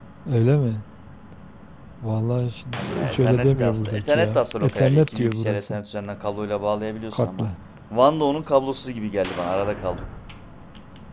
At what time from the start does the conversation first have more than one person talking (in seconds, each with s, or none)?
2.8 s